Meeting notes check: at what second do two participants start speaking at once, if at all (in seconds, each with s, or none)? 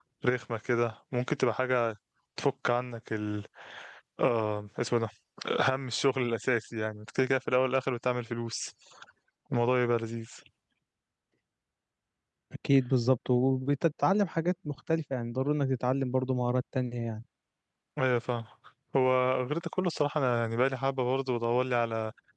none